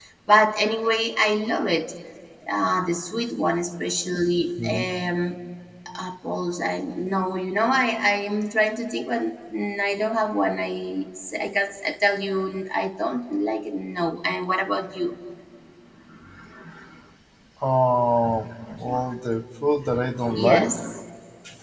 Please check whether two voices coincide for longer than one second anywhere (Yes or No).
No